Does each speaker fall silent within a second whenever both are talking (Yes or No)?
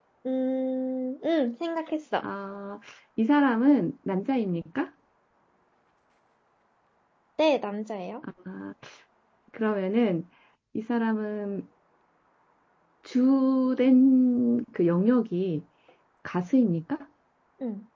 Yes